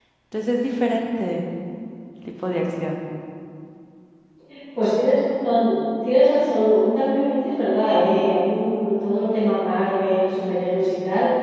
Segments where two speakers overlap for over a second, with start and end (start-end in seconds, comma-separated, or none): none